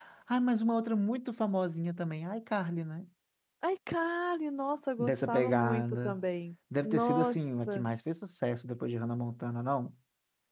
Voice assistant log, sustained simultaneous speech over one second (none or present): present